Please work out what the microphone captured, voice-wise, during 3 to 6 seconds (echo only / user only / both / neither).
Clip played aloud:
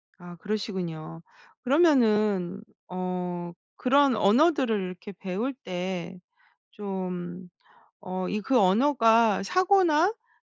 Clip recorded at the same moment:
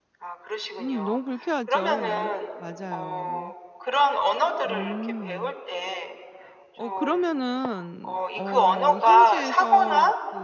both